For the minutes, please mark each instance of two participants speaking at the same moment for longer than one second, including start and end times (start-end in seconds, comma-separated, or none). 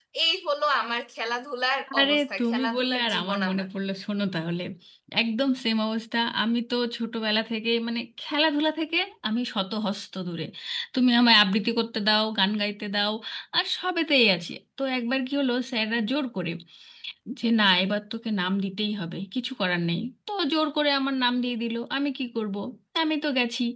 2.0-3.7